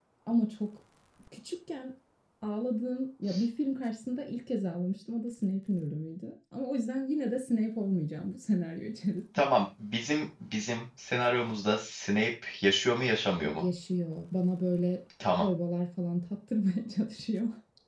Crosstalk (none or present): none